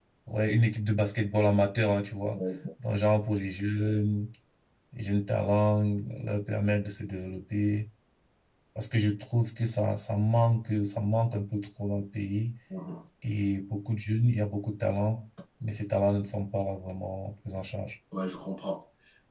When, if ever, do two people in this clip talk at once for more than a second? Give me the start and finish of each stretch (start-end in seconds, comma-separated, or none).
none